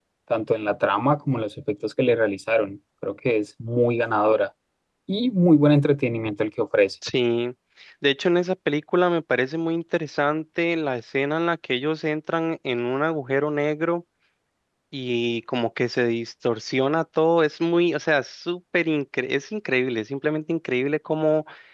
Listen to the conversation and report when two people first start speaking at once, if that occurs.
none

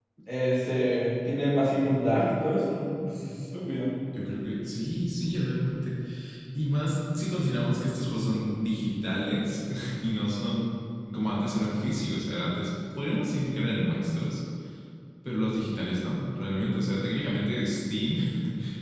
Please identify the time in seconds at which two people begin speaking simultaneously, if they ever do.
none

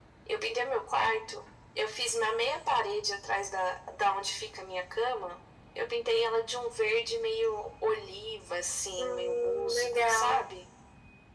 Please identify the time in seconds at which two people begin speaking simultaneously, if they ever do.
9 s

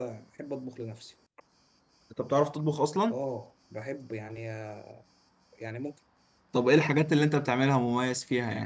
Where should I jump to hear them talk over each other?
none

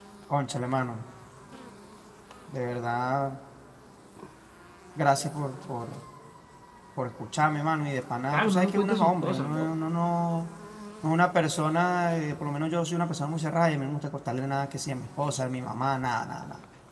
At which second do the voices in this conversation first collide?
8 s

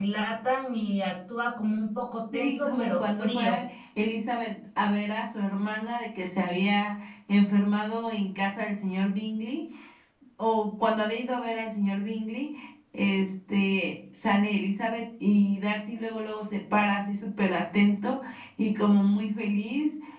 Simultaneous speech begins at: 2 s

